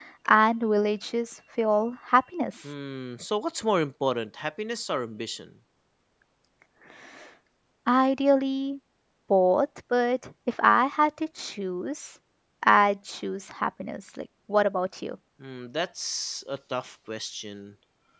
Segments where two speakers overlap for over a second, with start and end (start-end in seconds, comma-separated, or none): none